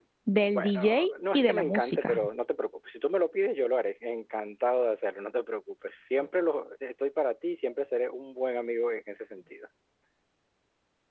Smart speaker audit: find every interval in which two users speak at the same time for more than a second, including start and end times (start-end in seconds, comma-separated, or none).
0.6-2.2